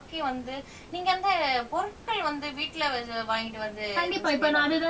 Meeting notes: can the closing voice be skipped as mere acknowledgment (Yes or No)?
No